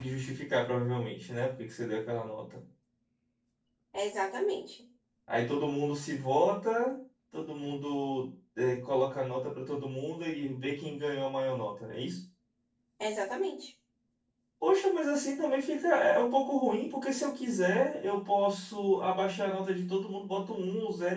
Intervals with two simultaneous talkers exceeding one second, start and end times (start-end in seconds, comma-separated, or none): none